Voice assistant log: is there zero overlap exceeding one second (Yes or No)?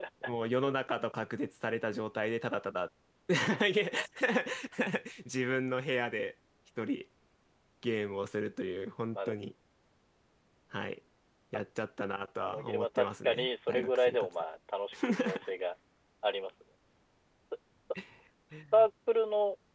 No